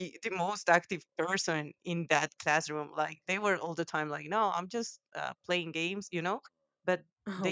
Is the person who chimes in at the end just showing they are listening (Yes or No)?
Yes